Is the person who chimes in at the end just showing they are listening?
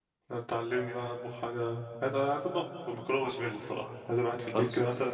Yes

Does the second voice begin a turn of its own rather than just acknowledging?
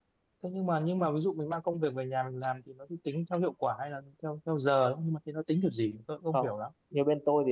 Yes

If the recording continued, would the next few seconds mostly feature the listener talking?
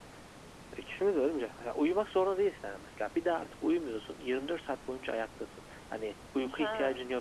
Yes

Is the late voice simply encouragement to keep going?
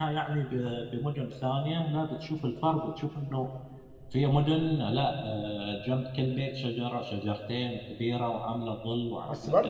No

